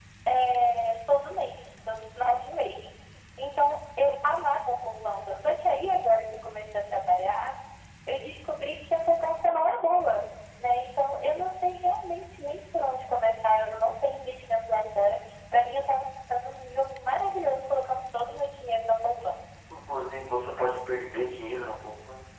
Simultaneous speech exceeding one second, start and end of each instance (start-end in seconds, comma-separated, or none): none